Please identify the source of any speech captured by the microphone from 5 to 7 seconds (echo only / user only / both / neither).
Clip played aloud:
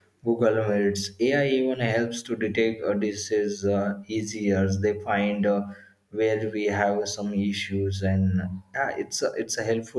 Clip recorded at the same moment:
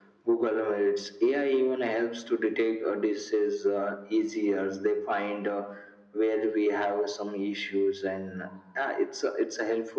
echo only